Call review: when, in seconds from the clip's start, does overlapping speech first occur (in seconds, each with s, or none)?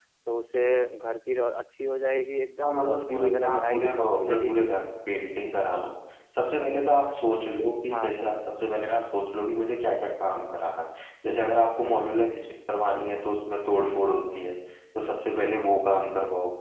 2.6 s